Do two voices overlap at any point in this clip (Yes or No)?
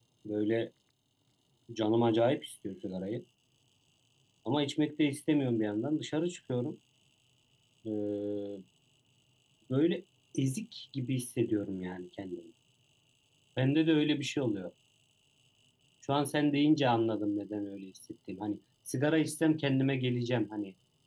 No